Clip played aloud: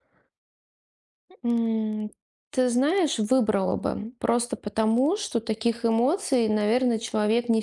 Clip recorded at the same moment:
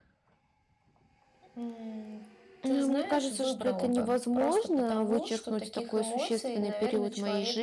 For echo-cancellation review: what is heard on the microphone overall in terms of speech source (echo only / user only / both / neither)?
both